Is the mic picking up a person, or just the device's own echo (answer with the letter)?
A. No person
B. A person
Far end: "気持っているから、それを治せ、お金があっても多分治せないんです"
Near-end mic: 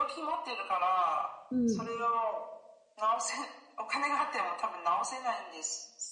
B